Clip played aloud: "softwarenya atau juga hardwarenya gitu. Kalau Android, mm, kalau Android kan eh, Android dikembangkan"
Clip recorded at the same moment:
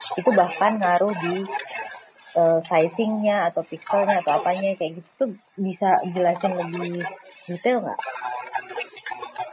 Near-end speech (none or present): present